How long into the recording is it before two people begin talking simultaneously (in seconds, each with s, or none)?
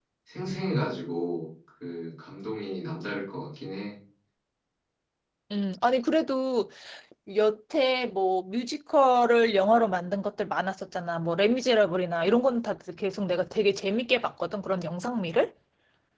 none